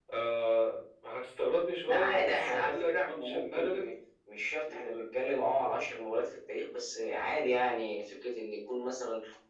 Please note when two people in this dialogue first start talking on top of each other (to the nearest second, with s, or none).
2 s